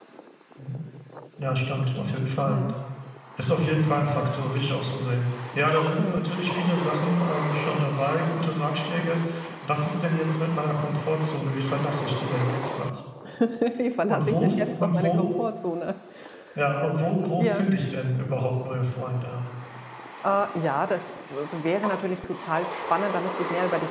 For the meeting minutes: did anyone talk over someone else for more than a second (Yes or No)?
Yes